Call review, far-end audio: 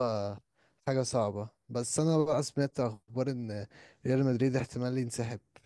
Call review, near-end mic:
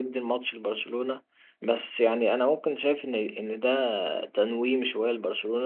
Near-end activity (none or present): present